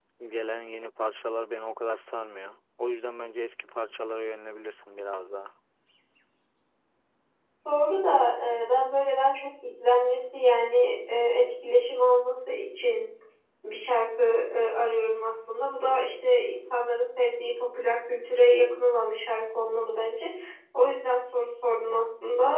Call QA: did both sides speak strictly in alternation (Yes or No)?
Yes